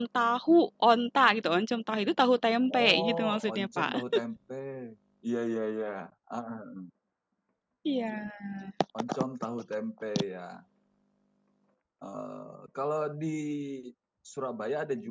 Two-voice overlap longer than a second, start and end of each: 2.7-4.2

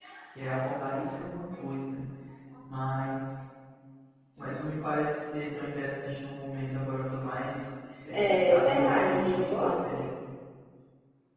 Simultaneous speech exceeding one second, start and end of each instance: 8.1-9.7

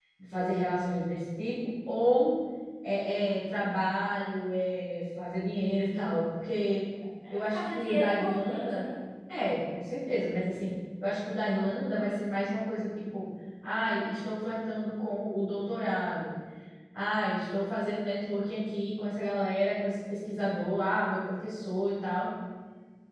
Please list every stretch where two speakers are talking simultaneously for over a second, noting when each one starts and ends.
7.3-8.9

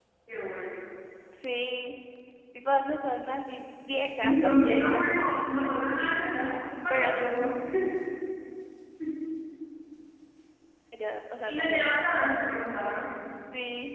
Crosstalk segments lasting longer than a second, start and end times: 4.2-5.7

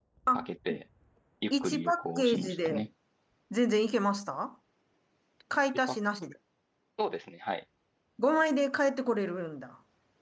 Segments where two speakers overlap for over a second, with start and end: 1.5-2.9

